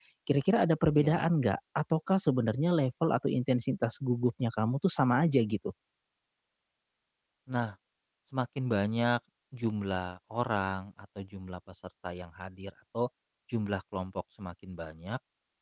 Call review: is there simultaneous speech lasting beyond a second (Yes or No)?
No